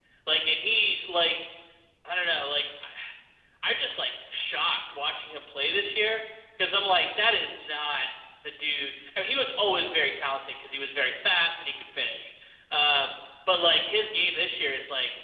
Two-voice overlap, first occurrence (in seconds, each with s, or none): none